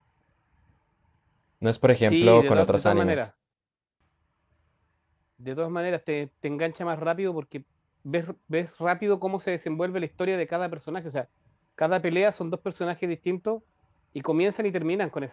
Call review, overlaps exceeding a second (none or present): present